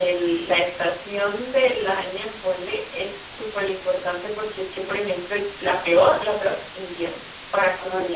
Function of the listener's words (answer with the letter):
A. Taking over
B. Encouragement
B